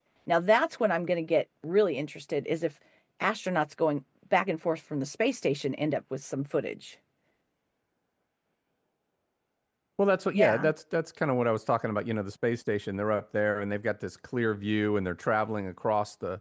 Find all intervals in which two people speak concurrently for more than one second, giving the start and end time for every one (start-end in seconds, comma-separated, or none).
none